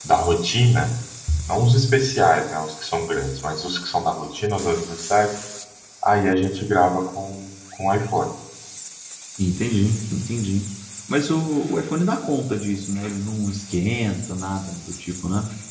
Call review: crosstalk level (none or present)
none